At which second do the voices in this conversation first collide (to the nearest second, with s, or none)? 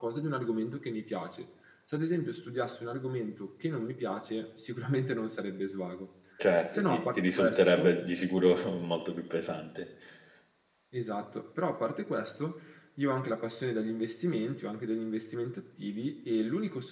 7 s